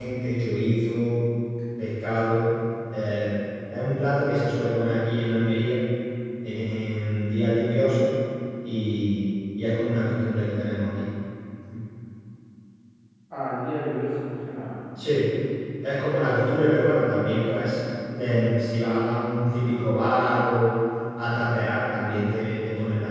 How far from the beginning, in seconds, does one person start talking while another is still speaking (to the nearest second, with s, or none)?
none